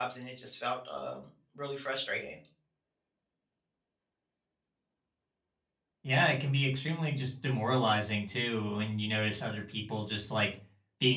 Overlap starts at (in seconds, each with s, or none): none